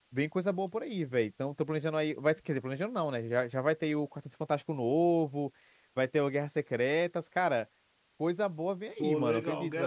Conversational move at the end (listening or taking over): taking over